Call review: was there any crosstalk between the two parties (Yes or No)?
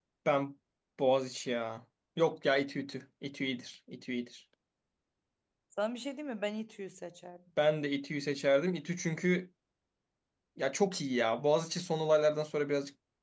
No